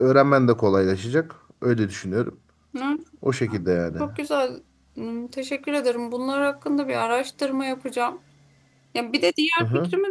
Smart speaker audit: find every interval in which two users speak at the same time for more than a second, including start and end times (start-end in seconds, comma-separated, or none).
none